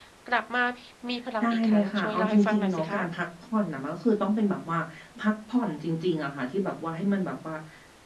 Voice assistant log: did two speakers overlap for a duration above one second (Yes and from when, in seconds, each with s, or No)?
Yes, from 1.4 s